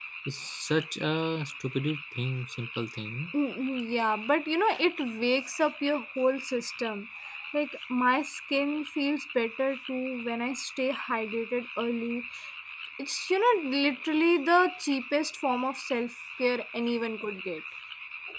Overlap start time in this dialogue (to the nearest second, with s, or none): none